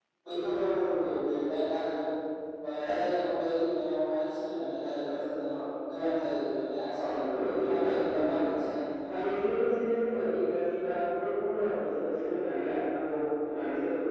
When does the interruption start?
7.0 s

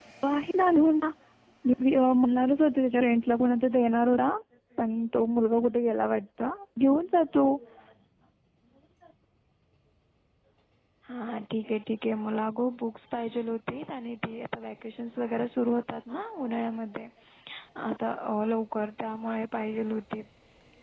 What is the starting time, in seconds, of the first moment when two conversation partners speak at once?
none

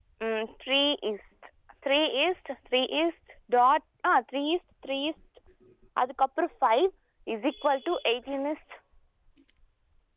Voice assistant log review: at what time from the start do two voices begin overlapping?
none

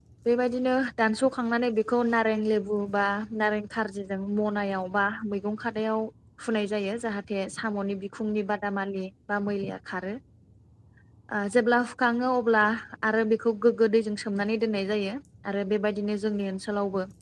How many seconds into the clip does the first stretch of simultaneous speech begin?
none

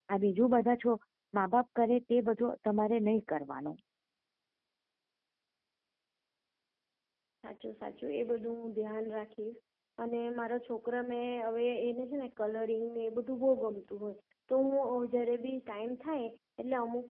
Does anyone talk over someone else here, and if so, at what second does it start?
none

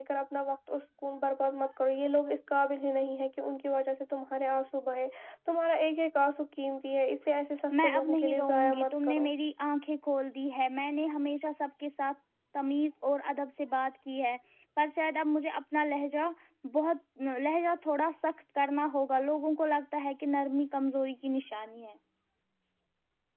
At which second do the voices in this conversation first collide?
7.7 s

